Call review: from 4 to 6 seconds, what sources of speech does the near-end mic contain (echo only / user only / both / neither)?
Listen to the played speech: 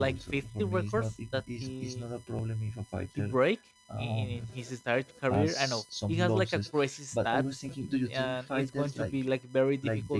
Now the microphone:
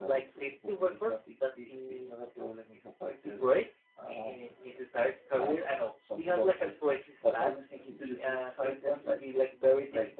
echo only